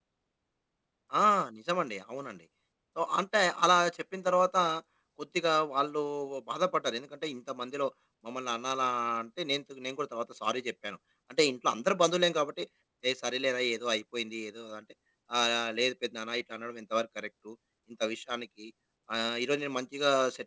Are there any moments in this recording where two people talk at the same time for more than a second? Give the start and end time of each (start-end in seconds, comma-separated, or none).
none